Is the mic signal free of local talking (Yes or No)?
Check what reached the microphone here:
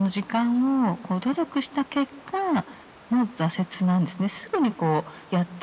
Yes